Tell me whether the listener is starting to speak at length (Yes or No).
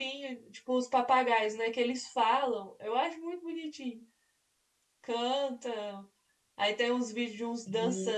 No